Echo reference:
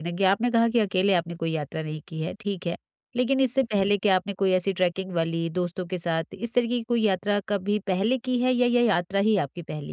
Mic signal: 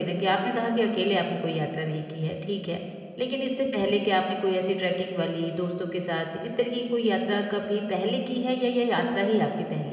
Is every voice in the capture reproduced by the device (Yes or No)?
Yes